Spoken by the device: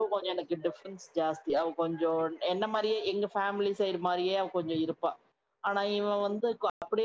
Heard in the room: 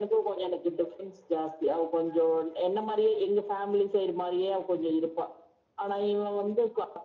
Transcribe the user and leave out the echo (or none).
none